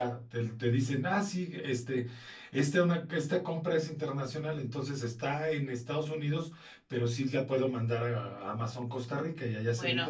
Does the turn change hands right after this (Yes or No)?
Yes